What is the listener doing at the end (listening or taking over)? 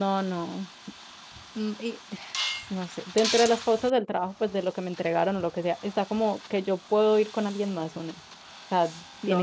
taking over